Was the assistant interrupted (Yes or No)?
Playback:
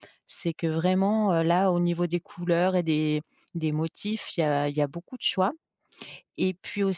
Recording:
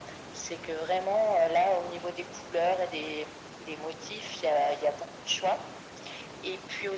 No